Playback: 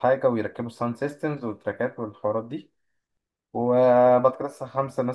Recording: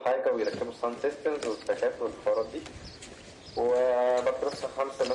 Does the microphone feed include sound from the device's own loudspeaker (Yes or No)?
Yes